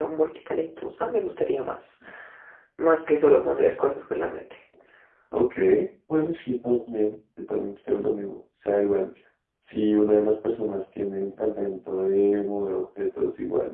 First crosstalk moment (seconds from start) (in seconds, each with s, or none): none